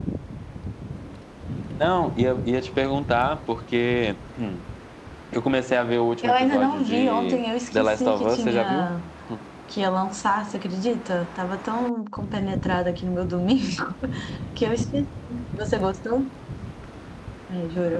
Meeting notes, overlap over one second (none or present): present